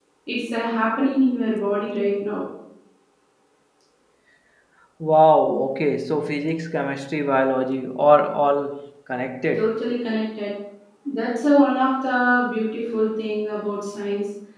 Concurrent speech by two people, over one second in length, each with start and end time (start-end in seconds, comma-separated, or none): none